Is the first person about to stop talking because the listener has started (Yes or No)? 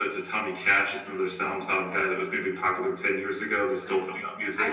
Yes